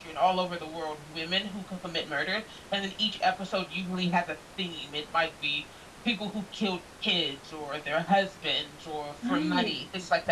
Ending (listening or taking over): listening